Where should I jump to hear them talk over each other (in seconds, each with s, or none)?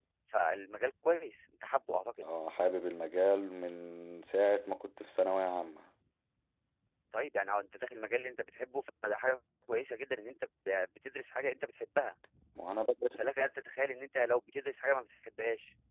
none